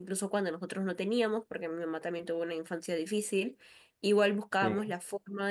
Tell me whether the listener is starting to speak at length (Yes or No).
No